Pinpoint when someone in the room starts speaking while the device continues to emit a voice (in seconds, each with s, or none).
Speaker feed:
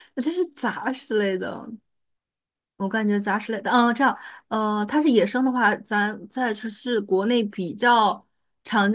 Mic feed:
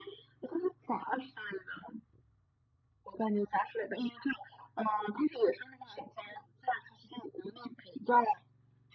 none